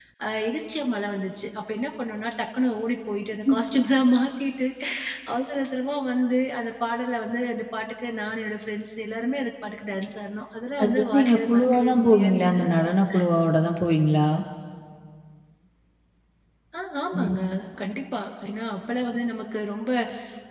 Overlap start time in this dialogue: 10.8 s

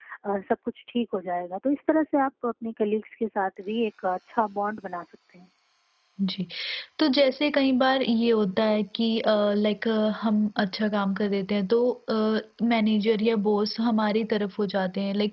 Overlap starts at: none

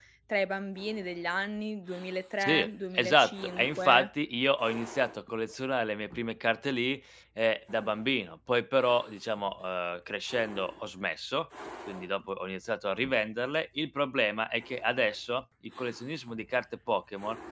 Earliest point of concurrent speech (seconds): 2.4 s

